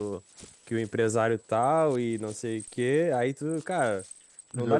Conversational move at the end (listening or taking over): listening